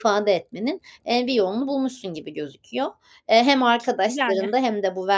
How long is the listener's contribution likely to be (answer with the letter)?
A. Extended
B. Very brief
B